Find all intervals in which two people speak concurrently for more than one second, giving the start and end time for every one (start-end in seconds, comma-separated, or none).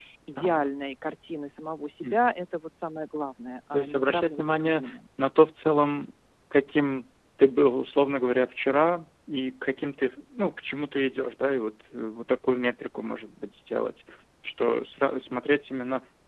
3.7-5.0